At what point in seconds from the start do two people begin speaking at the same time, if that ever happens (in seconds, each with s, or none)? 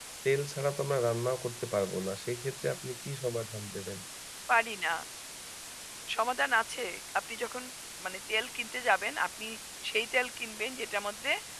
none